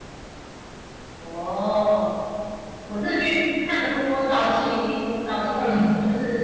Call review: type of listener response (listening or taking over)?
listening